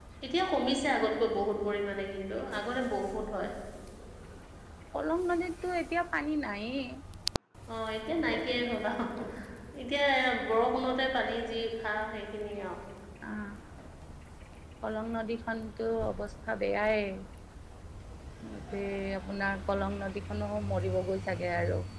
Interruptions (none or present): none